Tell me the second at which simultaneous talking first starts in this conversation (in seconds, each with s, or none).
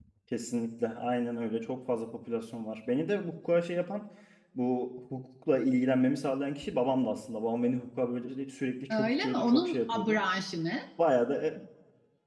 8.9 s